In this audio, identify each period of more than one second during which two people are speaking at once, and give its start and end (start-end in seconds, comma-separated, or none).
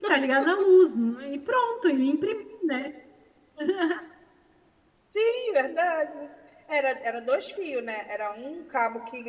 none